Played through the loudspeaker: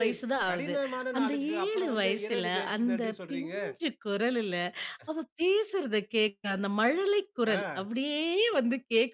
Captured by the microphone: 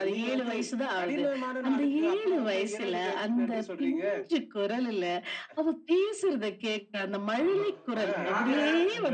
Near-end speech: present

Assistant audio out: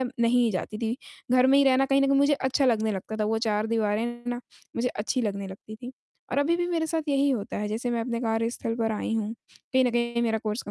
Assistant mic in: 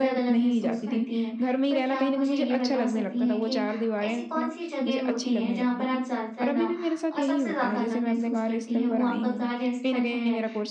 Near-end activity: present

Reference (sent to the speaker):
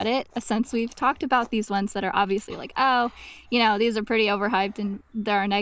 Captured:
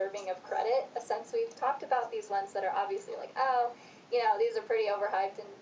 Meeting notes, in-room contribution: none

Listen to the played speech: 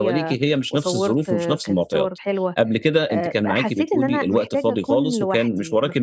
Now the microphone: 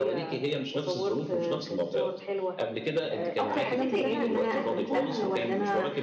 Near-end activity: present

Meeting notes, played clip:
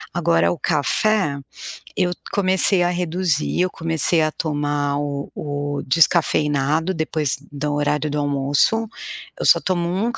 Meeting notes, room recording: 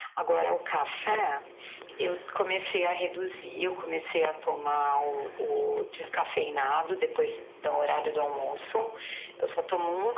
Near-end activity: none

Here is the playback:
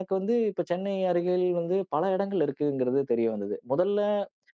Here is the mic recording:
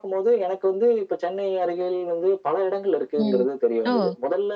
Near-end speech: present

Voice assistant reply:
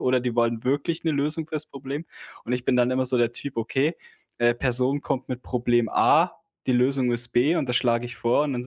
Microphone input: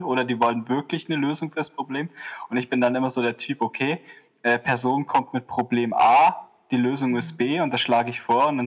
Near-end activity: present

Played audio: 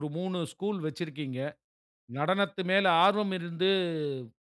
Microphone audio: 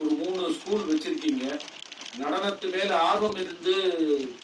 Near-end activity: none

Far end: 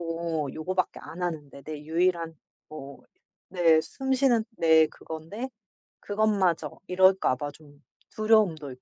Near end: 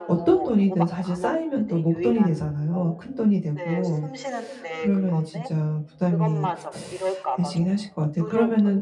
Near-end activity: present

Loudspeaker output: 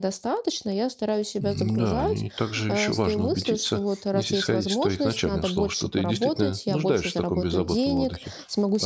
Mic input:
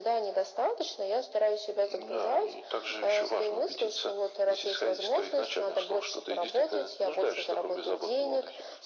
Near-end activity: none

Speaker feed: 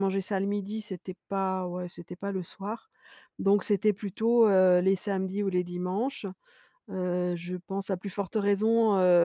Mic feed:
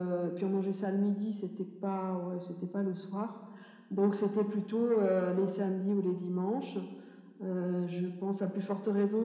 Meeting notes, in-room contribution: none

